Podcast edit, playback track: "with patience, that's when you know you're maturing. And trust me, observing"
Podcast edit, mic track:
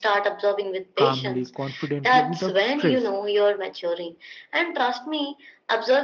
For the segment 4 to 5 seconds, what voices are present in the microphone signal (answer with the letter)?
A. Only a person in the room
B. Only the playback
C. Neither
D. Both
B